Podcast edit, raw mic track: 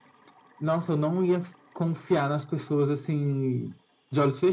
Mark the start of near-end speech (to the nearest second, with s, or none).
none